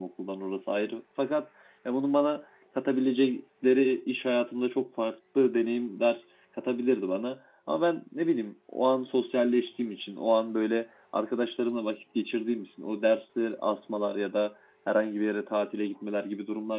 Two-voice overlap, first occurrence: none

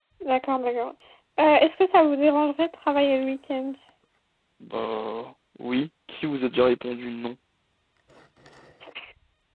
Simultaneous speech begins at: none

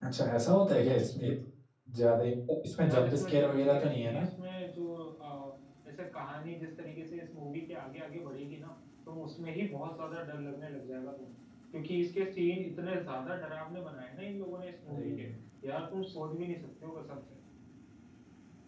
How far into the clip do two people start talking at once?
3 s

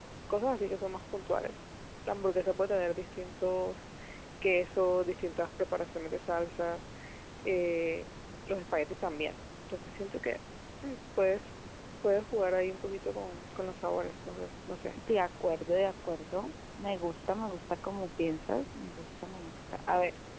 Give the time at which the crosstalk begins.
none

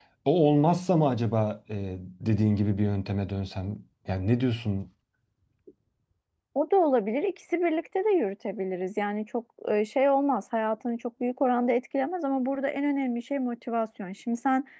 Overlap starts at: none

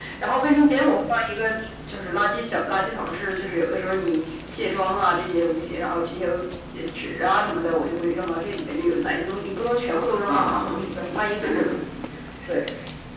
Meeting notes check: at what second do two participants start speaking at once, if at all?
10 s

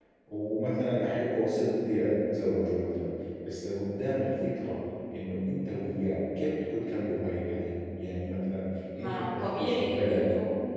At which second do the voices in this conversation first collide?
9 s

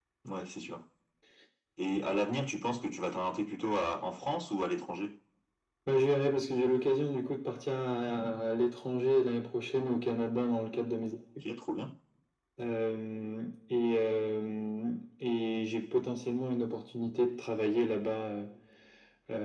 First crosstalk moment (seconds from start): none

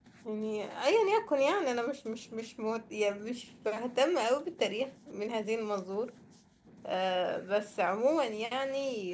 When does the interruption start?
none

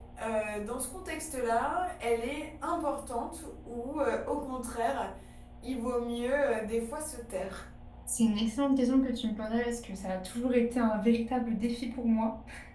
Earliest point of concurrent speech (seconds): none

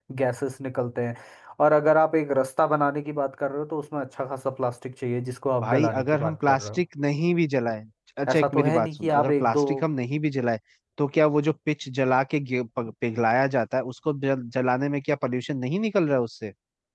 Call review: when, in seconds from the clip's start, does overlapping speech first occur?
6 s

